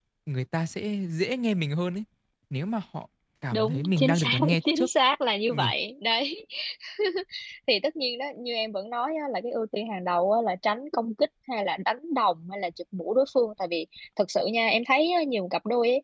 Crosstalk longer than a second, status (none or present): present